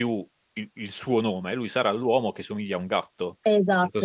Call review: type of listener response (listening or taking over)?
taking over